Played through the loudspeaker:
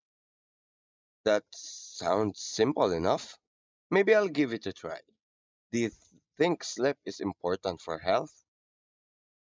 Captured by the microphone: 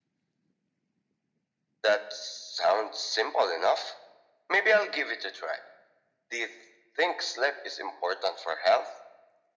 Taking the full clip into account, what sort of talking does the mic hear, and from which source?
echo only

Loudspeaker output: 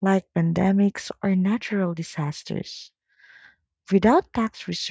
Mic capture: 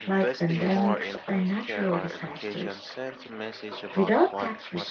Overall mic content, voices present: both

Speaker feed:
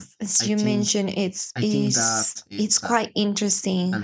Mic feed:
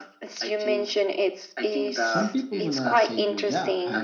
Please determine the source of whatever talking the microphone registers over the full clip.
both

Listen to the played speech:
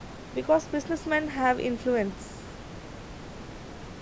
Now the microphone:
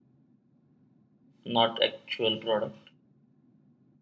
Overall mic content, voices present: user only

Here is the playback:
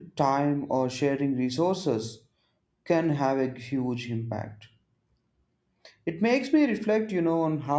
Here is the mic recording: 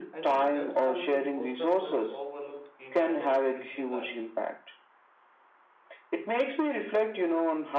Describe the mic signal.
both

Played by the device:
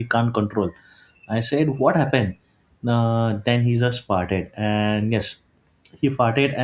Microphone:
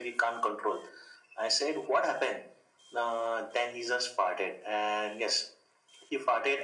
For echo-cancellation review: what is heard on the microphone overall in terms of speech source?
echo only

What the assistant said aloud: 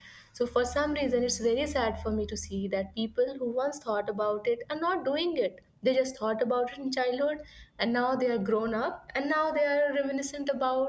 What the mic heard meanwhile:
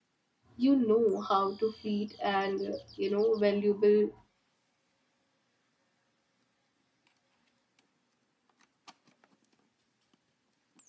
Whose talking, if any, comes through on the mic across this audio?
user only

